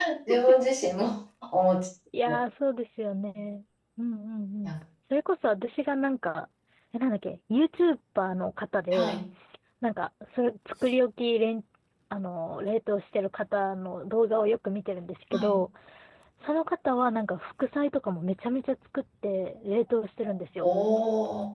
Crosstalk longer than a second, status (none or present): none